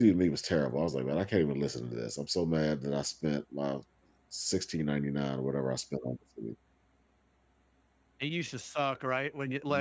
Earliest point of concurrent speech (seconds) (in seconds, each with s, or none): none